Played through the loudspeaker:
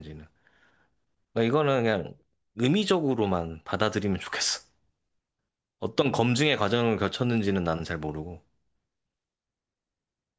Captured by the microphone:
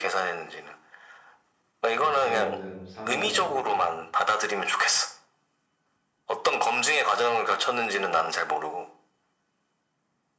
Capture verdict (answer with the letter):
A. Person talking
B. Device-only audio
A